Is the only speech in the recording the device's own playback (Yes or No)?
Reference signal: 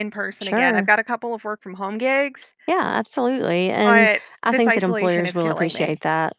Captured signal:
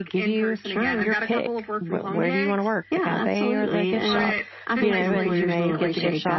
No